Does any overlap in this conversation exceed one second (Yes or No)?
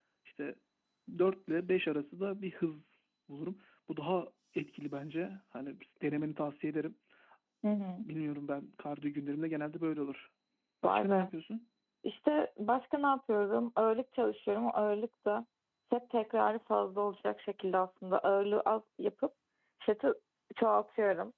No